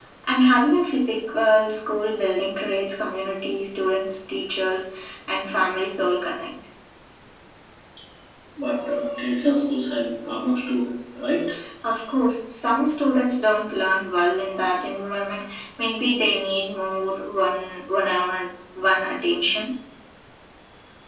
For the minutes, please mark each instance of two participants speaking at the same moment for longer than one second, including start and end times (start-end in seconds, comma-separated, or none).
none